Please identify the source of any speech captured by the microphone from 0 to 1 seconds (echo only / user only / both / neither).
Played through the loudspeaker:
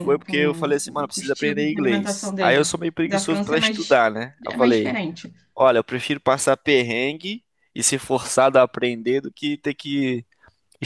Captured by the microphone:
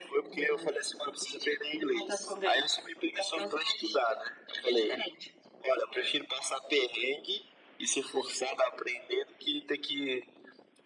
echo only